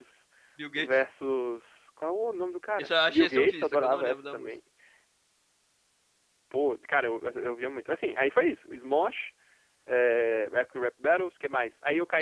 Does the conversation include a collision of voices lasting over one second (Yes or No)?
Yes